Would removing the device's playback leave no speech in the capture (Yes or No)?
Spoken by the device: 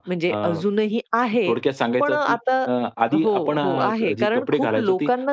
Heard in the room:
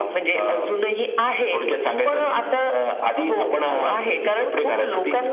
Yes